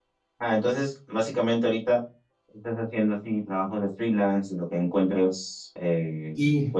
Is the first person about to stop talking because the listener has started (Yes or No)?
No